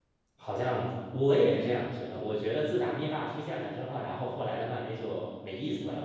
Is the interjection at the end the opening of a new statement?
Yes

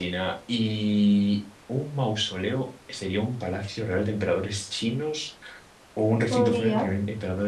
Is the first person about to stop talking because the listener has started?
No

